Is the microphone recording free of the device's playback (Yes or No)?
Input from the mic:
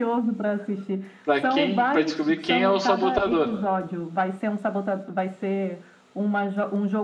No